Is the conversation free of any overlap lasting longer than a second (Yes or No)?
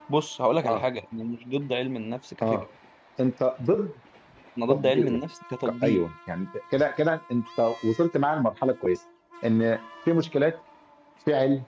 Yes